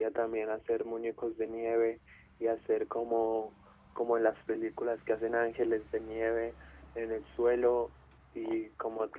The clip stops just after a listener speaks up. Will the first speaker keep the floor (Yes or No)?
Yes